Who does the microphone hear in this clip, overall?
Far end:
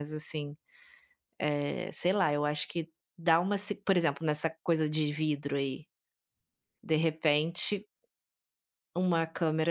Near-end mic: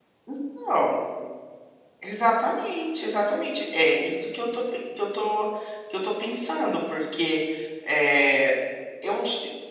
user only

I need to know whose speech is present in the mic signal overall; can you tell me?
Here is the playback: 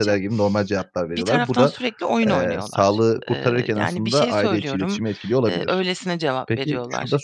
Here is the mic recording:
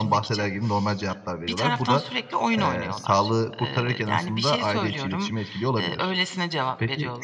echo only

